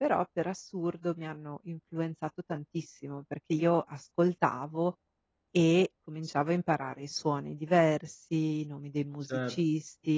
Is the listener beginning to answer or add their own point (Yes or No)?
Yes